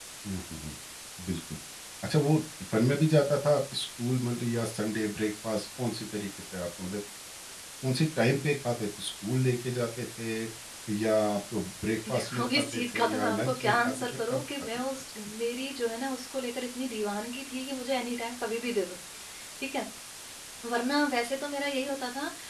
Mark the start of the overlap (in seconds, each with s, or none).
12.1 s